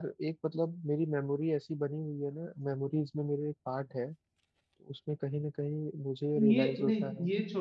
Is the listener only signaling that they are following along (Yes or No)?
No